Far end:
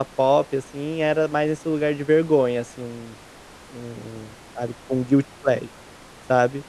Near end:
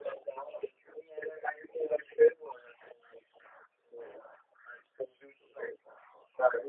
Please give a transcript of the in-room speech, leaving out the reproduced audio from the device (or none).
none